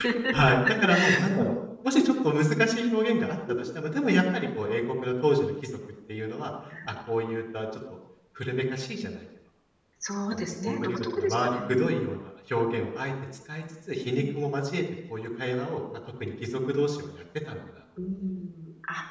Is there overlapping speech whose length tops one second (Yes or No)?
Yes